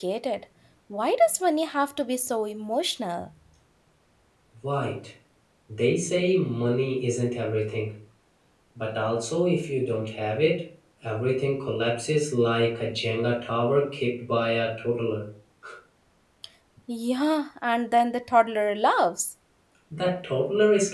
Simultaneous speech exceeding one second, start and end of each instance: none

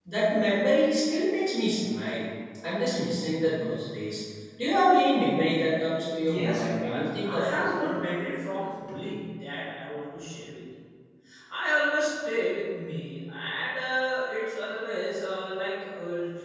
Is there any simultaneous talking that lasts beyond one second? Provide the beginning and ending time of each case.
6.2-7.9

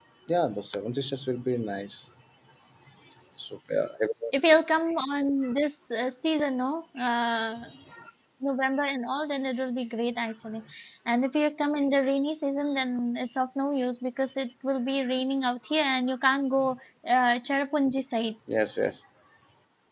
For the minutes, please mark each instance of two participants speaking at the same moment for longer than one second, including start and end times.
none

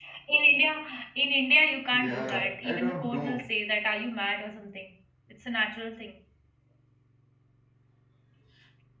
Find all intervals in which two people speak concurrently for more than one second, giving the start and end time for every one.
1.9-3.4

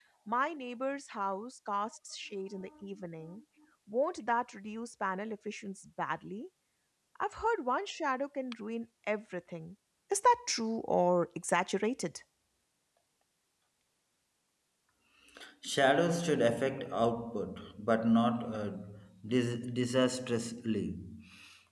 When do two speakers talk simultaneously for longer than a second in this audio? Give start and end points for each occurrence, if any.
none

